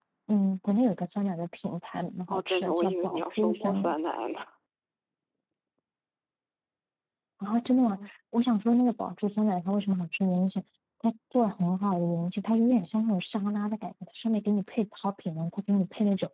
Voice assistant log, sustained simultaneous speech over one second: present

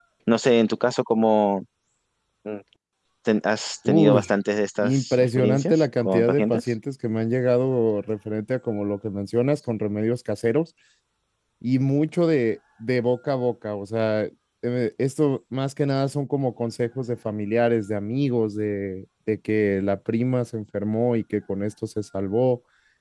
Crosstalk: present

